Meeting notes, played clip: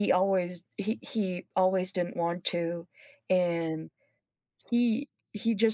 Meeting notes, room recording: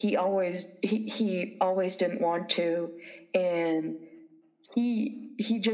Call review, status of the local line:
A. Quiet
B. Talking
A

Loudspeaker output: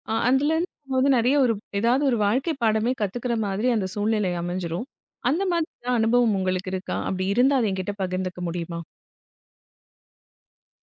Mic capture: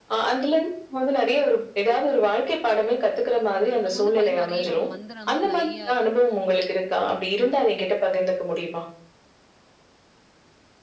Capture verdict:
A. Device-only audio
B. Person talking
B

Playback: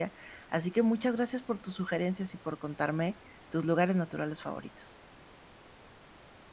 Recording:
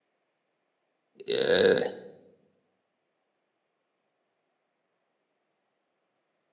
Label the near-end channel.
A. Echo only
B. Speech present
B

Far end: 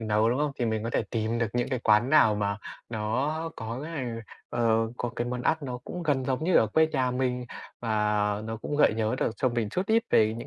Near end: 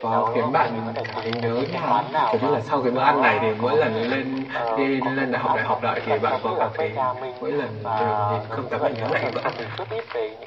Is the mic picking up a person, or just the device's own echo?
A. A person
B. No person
A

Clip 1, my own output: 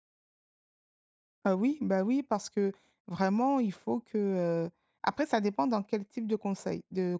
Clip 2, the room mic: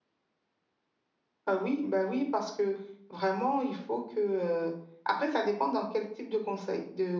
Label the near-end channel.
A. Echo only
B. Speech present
A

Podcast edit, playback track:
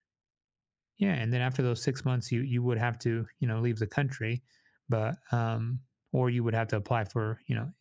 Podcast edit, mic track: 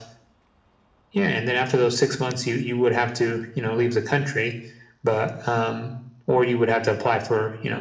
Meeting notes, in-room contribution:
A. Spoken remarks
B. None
B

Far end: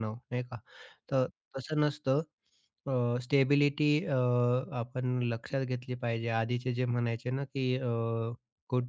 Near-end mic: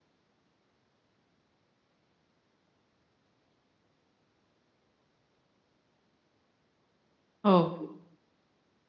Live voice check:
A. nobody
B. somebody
B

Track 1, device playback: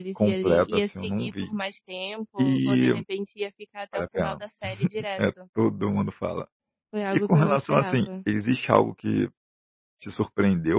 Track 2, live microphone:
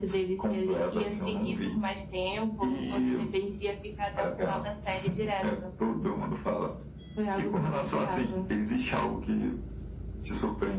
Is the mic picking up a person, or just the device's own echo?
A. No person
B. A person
A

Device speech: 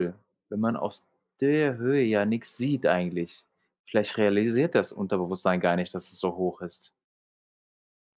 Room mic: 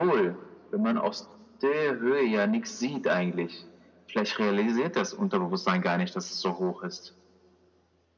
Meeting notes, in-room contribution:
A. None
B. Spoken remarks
A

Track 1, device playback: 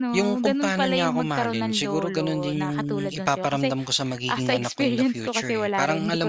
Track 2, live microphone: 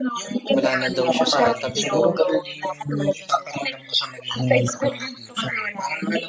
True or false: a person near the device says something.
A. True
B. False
A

